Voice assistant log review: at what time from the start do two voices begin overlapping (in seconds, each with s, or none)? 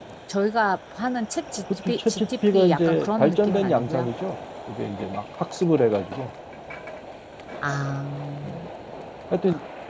1.9 s